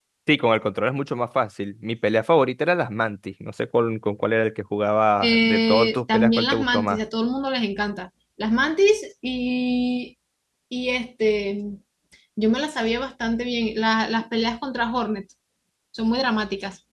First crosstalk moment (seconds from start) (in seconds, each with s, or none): 5.2 s